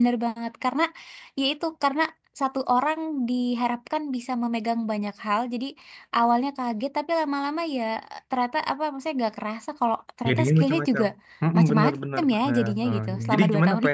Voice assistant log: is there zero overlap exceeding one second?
No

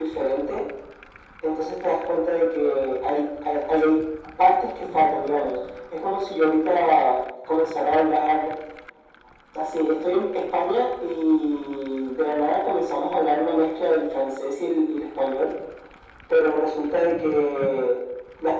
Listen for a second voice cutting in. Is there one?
No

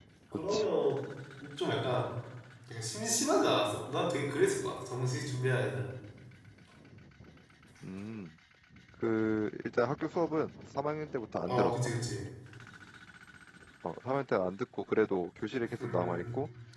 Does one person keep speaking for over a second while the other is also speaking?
No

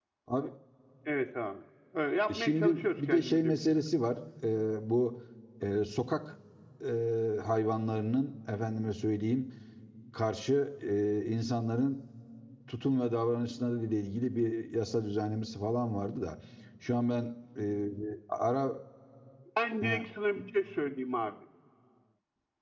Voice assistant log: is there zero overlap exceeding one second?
No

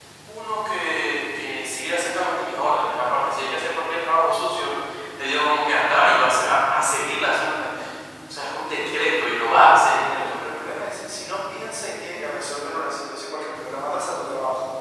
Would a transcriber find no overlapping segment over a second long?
Yes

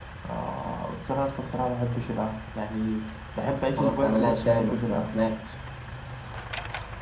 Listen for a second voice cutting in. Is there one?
Yes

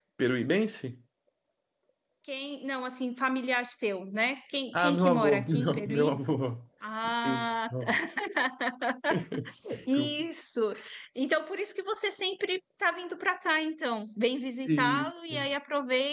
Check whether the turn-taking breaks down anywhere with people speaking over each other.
Yes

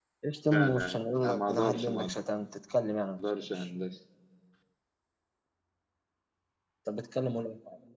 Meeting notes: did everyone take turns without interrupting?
No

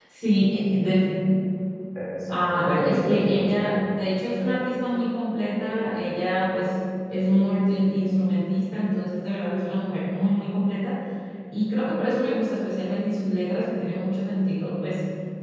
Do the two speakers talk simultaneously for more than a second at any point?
Yes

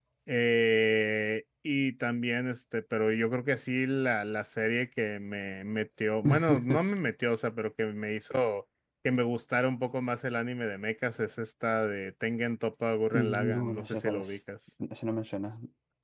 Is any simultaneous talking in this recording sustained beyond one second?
Yes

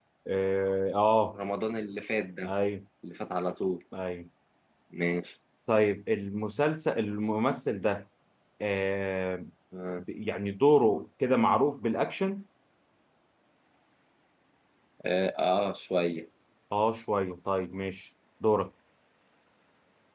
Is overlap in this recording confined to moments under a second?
Yes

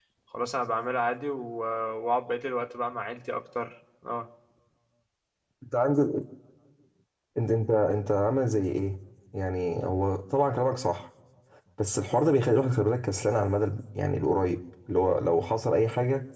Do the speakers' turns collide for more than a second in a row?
No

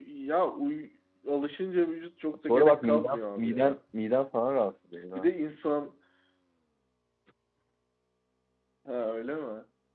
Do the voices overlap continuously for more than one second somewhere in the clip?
Yes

